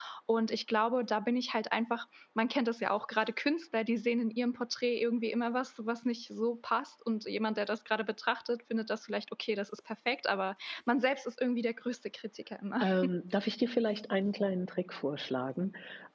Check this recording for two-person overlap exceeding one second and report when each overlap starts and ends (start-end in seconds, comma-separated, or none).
none